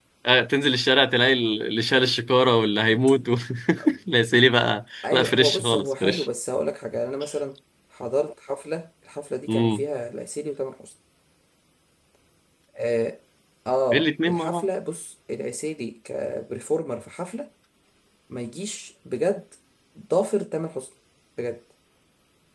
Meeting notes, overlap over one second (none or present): present